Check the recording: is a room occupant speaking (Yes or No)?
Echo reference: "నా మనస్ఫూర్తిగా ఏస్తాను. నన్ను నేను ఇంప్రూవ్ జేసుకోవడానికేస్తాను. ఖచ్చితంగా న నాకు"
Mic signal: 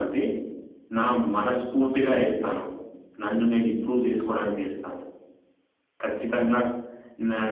No